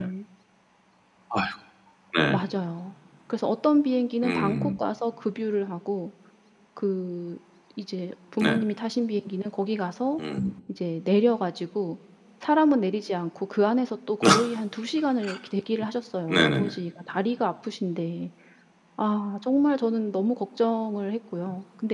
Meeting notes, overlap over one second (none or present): none